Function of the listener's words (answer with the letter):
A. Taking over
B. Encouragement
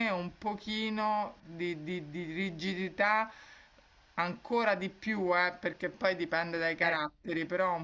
B